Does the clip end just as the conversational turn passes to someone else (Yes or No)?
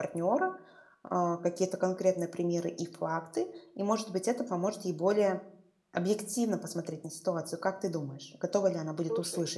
Yes